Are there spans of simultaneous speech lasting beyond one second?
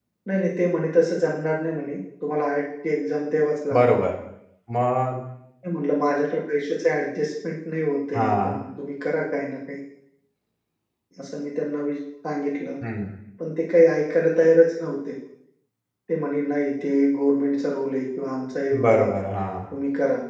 No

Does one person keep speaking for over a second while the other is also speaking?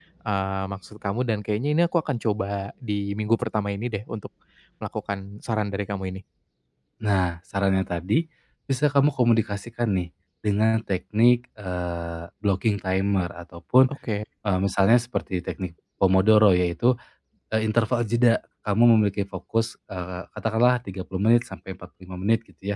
No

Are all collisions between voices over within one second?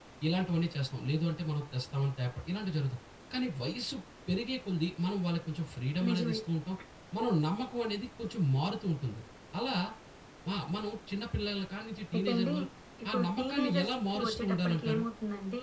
No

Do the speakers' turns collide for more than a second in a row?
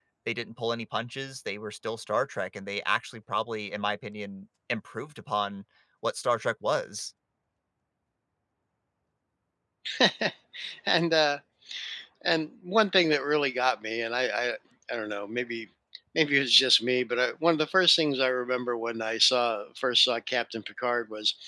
No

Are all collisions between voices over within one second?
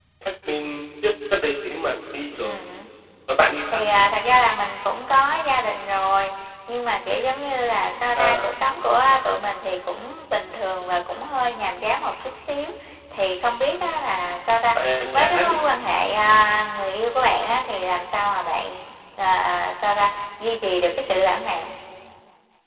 Yes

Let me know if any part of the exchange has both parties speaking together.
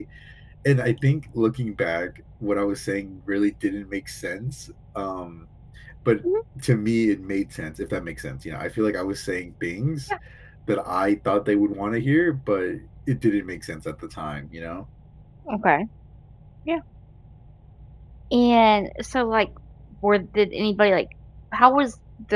No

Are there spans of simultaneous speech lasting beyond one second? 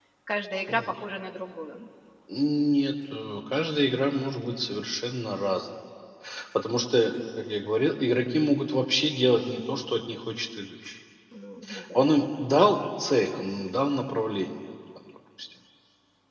No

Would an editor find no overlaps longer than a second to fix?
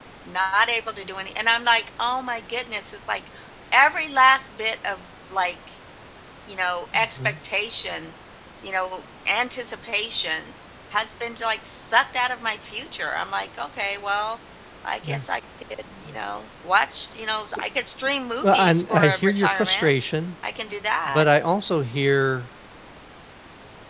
No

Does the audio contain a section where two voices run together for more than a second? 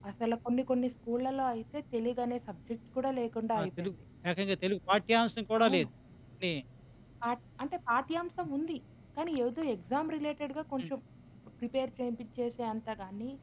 No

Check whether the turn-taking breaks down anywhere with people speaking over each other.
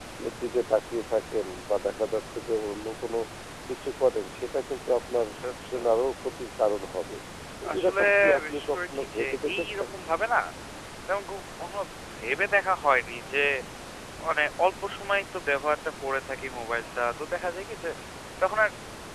Yes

